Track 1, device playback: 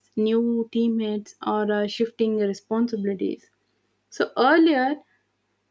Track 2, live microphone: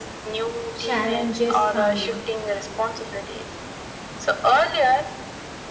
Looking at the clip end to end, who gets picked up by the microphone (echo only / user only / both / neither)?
both